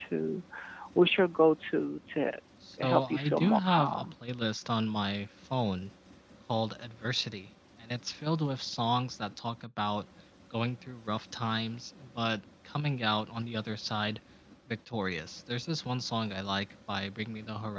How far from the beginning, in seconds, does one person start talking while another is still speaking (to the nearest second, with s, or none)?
3 s